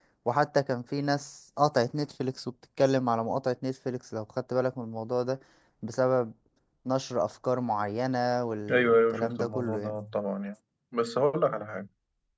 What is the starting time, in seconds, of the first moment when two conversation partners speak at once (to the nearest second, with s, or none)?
9 s